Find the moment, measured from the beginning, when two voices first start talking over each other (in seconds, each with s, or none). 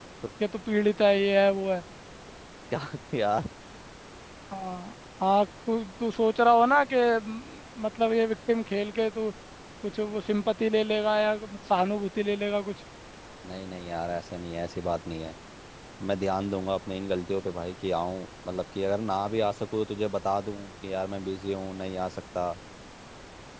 none